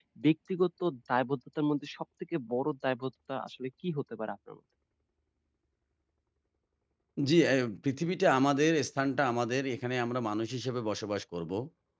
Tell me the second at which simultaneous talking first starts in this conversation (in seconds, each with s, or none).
none